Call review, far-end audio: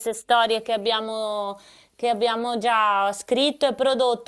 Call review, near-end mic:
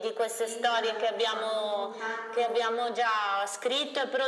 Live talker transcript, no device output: entrano, insomma, in contatto,

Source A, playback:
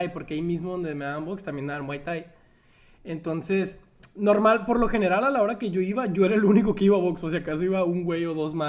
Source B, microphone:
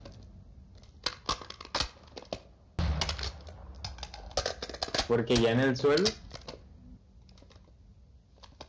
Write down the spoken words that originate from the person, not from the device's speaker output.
Porque ya en el suelo,

